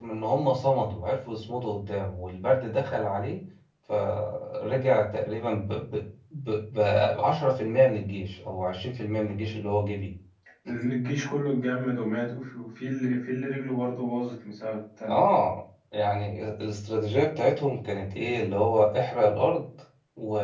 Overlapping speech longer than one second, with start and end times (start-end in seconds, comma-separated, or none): none